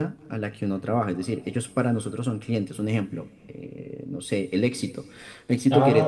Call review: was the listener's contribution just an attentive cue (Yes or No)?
No